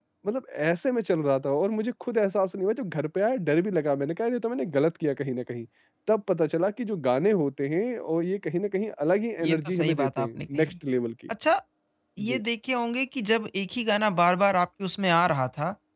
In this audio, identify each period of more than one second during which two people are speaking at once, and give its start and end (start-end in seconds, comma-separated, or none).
9.4-10.7